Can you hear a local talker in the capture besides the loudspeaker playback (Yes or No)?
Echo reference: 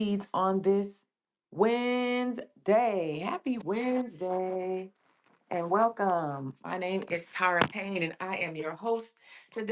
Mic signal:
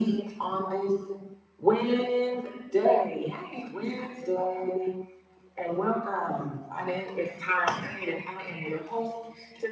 No